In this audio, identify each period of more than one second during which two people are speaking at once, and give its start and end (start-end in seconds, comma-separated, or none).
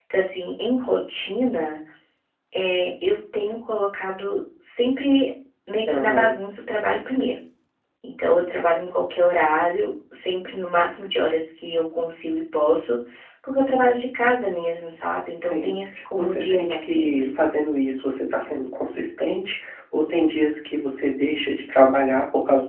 16.1-17.4